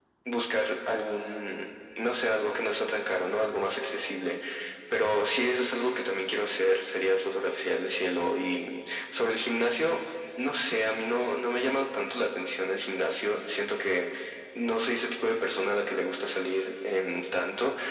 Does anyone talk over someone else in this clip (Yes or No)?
No